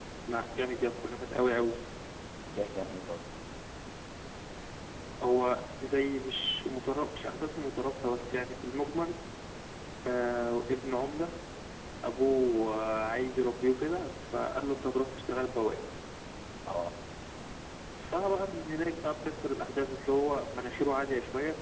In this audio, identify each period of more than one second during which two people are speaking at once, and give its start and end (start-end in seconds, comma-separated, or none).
none